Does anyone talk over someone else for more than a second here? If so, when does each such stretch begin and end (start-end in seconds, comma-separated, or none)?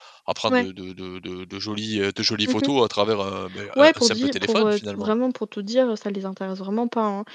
3.8-5.1